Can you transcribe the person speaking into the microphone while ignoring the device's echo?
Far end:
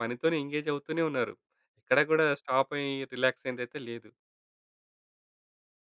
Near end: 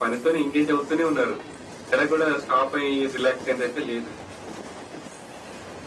none

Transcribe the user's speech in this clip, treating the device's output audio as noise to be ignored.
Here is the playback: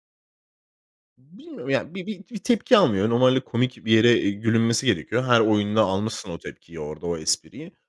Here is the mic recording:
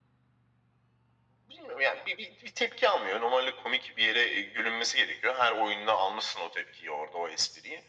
none

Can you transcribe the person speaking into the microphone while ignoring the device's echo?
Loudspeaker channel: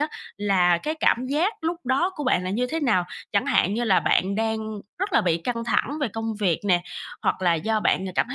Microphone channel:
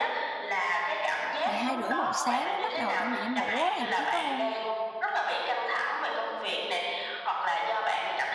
12:30-1:00 sáng mới bắt đầu chuẩn bị đi ngủ á, thậm chí có hôm,

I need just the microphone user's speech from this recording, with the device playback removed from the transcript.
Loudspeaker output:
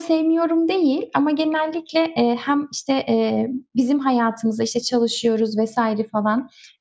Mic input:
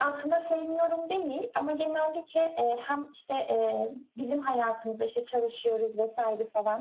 none

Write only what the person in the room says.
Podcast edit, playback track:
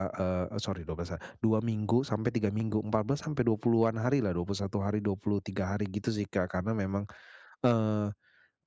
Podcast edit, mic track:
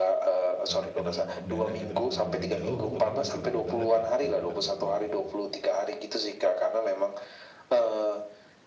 apalagi kadang perdana gitu kan, pergi dengan jauh gitu kan, pasti beda banget ya, kalau kita pergi

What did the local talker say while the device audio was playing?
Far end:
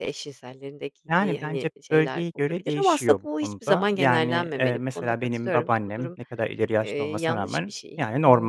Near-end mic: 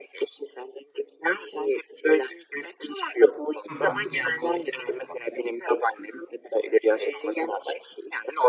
Hı hı.

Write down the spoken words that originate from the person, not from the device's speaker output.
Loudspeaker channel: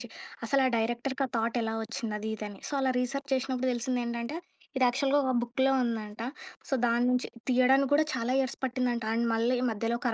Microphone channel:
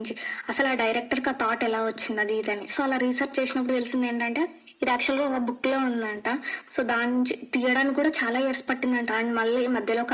none

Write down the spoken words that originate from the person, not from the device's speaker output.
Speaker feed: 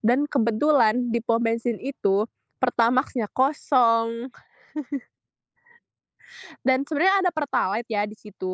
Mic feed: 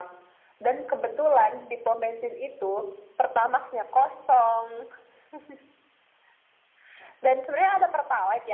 none

